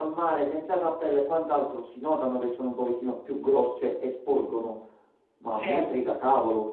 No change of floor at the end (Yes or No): Yes